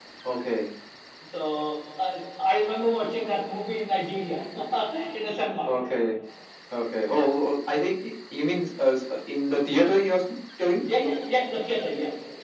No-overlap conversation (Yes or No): Yes